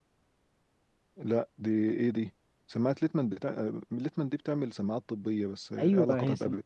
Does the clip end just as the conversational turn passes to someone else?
Yes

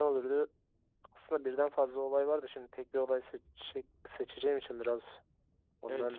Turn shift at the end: Yes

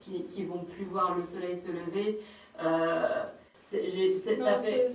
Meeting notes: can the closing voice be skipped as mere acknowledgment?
No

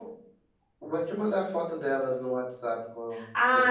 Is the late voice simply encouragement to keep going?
No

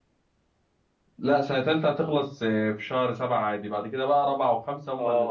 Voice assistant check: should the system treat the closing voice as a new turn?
Yes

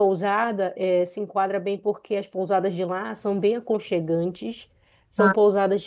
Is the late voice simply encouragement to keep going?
Yes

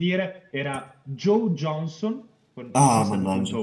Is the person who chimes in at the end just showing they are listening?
No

